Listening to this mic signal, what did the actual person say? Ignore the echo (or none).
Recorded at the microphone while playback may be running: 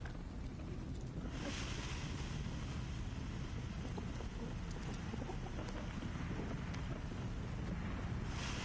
none